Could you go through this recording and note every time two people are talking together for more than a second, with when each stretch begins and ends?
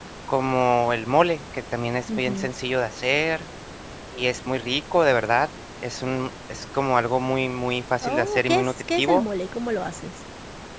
8.0-9.2

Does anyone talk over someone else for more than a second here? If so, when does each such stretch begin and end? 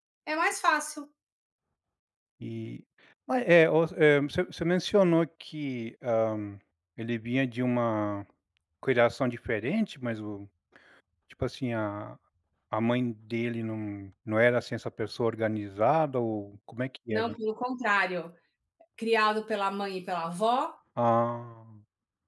none

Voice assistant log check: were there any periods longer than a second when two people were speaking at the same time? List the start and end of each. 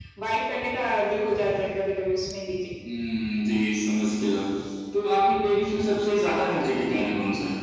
none

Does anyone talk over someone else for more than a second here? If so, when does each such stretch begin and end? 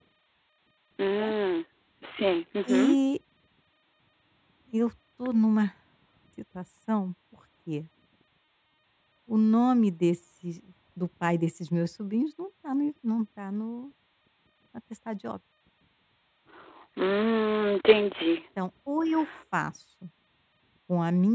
none

